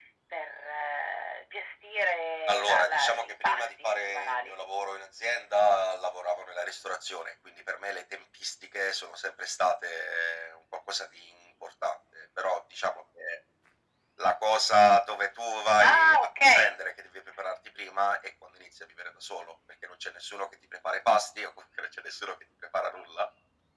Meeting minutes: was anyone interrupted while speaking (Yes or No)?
Yes